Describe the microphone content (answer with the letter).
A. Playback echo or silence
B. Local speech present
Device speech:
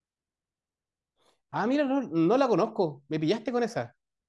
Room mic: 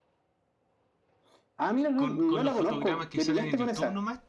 B